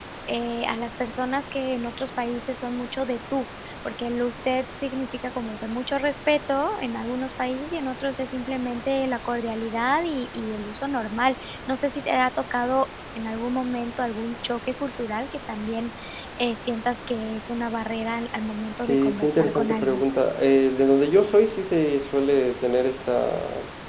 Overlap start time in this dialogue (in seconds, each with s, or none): 18.6 s